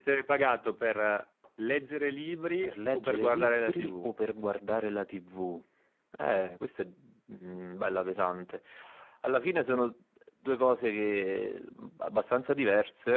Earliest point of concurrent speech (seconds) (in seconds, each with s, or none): 2.6 s